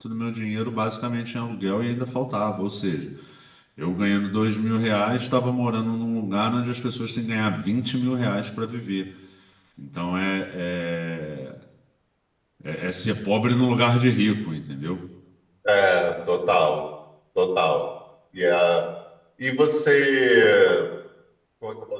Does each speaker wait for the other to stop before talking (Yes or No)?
Yes